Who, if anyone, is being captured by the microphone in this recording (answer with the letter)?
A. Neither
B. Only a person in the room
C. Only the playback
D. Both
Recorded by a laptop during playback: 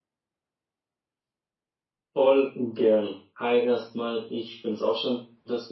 C